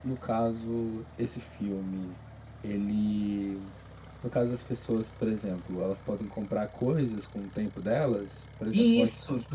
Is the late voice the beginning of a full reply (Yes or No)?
Yes